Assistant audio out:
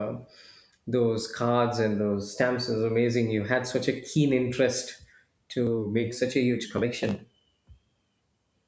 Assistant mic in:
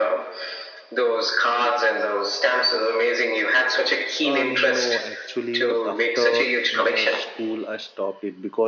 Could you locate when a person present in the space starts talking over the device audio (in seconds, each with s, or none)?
4.2 s